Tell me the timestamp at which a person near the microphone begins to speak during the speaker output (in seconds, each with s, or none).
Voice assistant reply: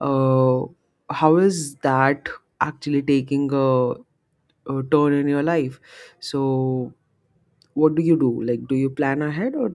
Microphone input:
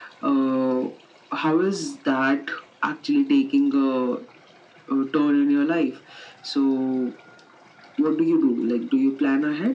none